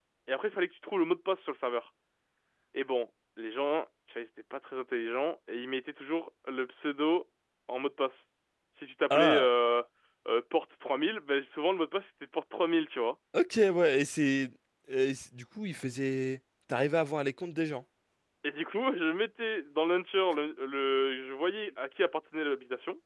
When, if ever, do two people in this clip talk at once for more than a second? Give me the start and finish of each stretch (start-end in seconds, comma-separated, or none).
none